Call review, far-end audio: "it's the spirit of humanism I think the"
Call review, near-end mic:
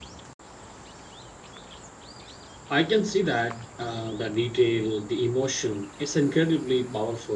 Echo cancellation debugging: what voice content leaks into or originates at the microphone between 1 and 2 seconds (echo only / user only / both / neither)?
neither